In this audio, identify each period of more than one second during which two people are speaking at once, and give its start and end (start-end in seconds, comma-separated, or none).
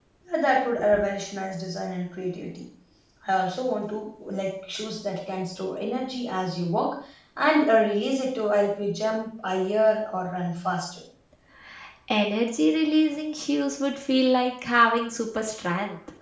none